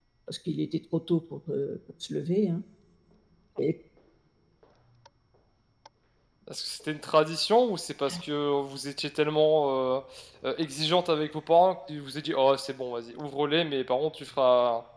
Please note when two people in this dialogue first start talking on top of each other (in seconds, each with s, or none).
none